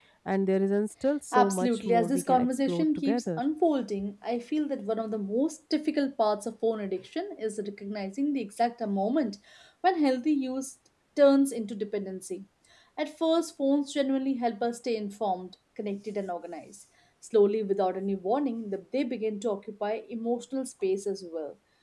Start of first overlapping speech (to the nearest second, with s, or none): 1 s